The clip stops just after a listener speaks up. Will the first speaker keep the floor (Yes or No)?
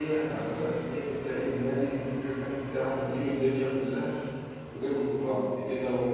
Yes